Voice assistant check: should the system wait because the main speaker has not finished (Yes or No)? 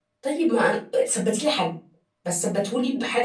No